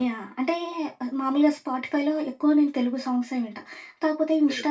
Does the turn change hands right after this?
No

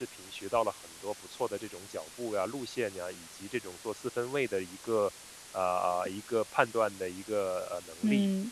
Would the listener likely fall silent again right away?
No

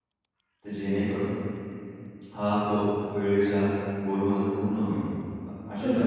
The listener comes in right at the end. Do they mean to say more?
Yes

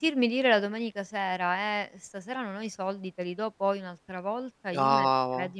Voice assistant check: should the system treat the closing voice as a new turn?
No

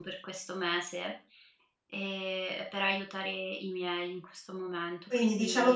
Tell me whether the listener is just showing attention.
No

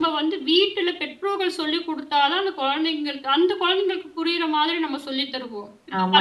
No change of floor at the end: No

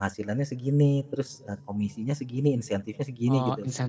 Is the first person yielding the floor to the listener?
Yes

